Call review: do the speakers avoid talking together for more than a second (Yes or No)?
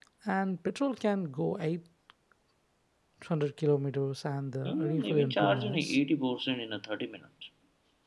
No